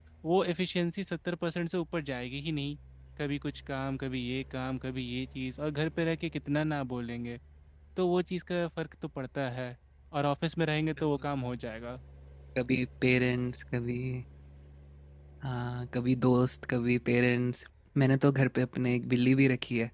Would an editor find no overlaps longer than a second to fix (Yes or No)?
Yes